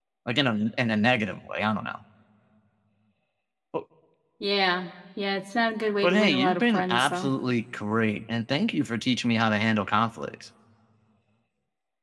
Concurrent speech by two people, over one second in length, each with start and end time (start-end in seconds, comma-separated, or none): 6.0-7.3